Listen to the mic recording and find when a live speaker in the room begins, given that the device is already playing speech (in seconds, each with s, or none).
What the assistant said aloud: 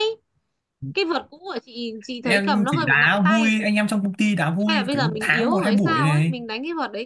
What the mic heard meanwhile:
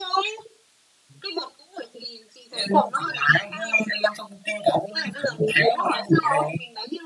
none